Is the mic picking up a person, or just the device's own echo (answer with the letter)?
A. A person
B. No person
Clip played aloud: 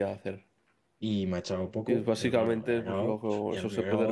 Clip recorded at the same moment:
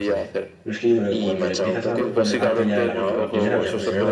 A